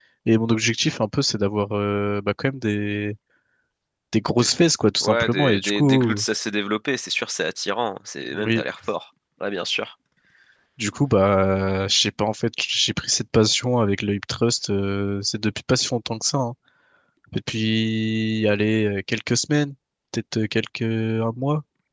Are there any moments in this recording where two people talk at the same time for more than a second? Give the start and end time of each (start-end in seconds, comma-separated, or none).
5.0-6.2